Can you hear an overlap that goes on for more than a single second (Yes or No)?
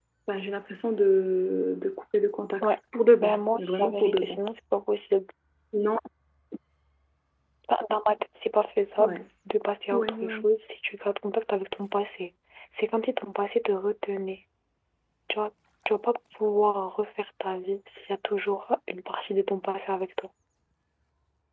Yes